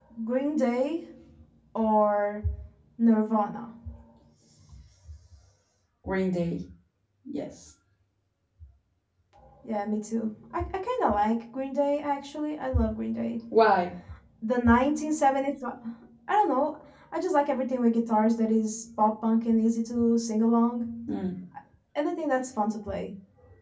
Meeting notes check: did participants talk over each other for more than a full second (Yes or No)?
No